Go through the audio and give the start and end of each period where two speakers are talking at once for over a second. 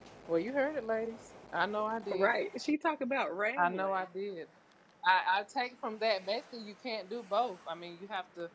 none

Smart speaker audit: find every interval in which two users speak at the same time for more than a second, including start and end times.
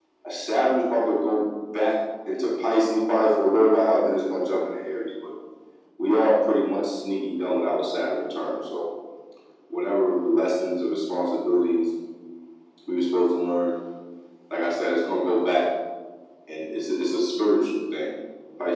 none

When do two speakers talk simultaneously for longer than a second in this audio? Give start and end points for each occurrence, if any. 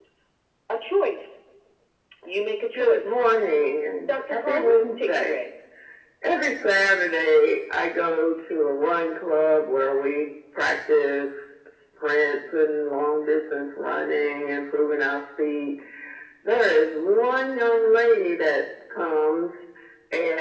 4.1-5.4

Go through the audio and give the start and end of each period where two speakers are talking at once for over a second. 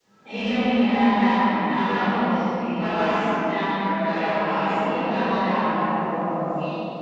4.0-5.6

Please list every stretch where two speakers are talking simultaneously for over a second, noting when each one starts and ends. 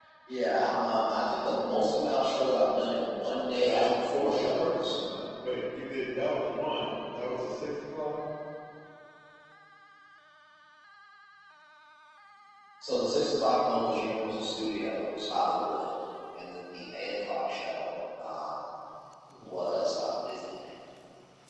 3.6-5.0

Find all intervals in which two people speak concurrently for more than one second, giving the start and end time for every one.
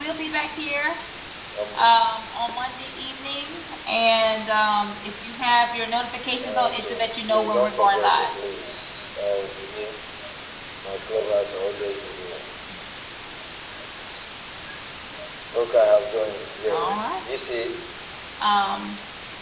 6.4-8.3

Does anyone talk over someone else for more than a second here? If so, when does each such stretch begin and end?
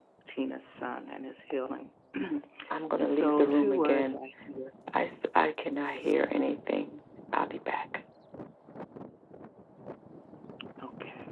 3.0-4.2

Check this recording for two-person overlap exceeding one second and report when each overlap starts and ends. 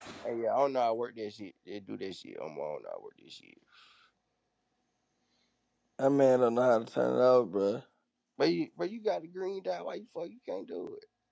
none

